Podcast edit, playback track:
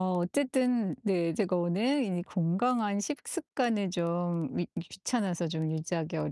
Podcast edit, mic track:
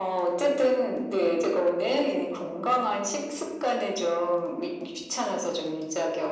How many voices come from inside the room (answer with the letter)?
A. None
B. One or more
A